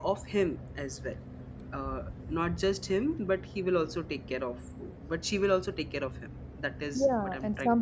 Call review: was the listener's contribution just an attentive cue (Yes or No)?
No